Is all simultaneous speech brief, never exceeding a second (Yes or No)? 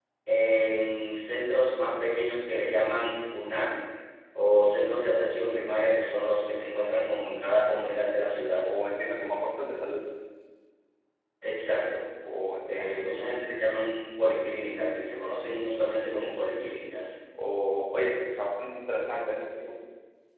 Yes